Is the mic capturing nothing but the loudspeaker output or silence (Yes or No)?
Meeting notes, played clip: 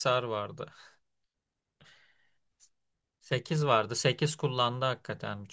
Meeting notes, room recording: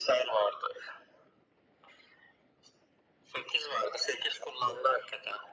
Yes